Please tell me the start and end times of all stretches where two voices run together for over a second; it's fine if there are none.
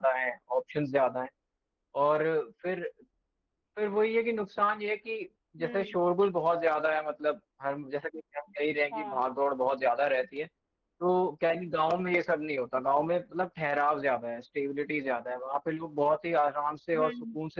none

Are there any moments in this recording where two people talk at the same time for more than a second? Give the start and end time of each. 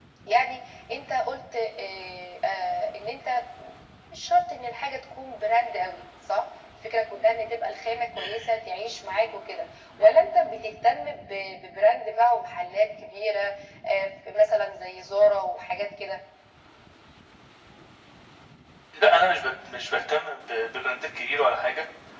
none

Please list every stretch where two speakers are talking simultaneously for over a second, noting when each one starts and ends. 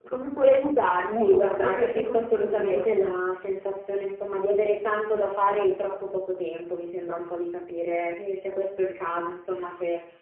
1.1-2.9

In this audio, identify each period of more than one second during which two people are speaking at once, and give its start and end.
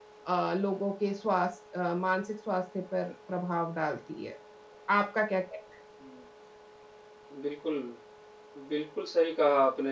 none

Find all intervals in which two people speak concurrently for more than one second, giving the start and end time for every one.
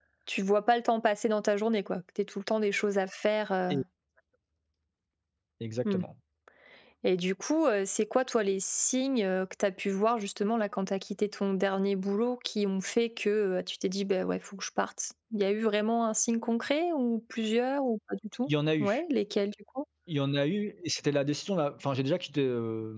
none

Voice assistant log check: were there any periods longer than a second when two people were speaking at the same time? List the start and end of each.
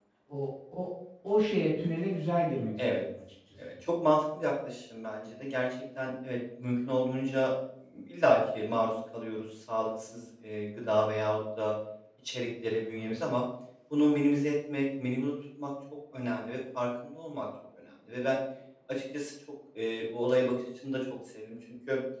none

